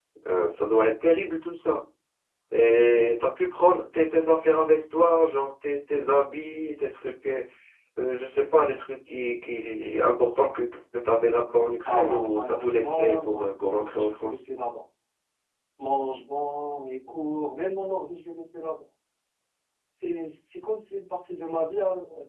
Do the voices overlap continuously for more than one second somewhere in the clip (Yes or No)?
Yes